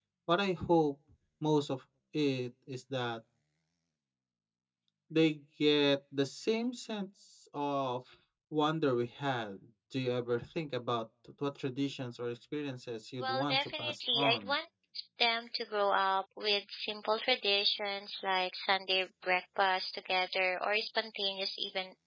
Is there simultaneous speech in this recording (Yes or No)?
Yes